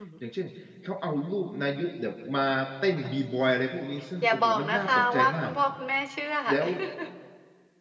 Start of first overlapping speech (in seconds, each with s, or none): 4.2 s